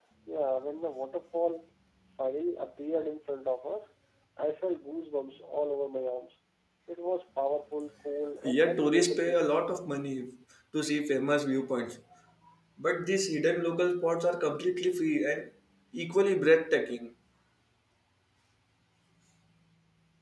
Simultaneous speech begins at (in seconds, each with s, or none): 8.4 s